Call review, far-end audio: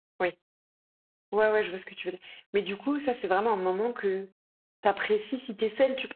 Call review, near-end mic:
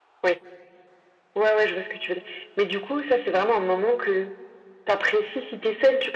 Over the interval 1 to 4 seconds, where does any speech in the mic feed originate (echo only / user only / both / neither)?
echo only